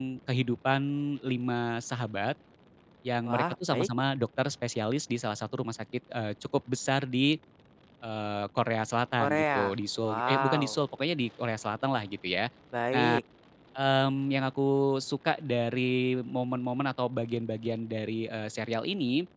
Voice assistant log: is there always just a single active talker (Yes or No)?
No